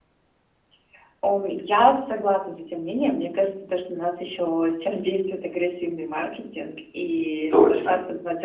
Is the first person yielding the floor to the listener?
No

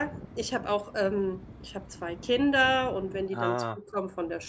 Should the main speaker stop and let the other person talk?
No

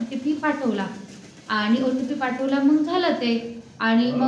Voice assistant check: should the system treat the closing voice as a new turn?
No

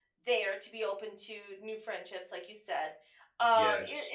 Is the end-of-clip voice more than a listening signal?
No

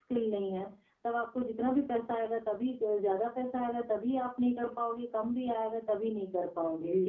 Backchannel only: No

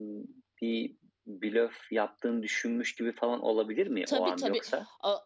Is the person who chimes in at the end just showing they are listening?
No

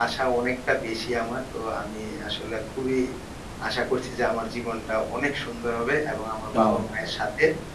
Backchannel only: Yes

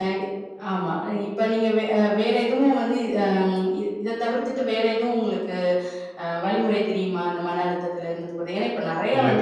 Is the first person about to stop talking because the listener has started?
No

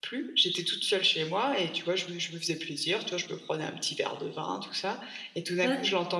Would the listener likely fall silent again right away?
Yes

